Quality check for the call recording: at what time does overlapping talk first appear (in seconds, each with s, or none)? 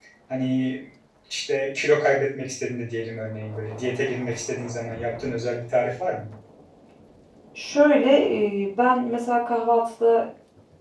none